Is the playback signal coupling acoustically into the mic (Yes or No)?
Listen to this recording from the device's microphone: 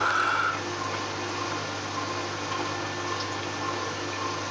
No